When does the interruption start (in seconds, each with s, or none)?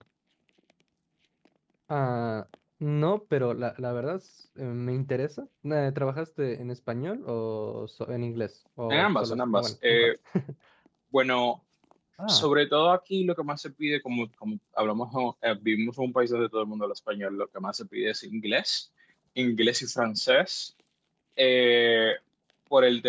8.9 s